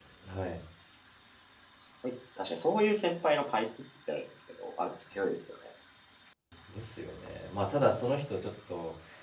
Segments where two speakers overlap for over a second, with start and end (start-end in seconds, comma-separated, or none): none